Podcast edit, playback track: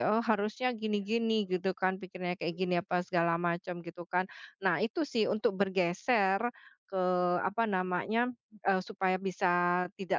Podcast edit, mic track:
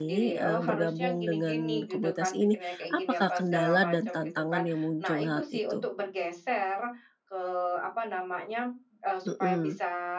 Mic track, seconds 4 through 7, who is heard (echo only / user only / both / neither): both